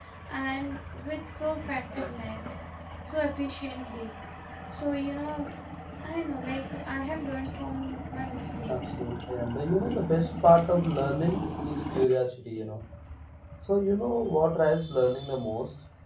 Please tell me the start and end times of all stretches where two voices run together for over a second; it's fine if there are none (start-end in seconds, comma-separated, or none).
none